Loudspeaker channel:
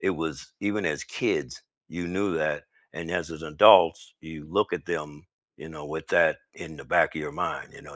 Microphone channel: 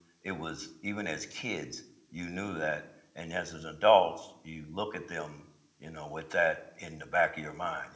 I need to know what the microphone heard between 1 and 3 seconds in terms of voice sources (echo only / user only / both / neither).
echo only